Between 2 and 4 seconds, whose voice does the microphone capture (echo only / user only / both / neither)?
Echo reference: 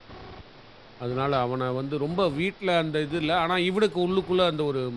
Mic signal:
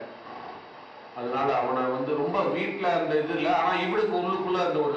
echo only